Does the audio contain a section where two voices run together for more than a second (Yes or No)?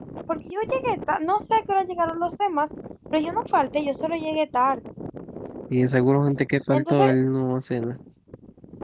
No